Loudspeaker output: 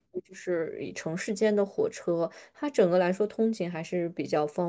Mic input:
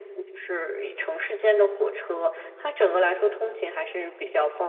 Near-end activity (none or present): none